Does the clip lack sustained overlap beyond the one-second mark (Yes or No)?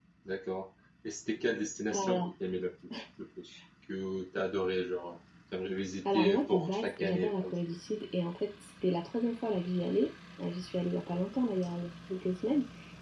No